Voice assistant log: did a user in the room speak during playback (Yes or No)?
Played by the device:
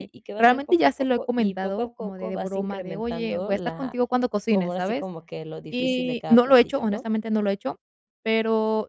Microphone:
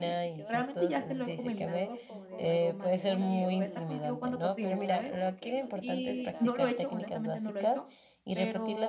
Yes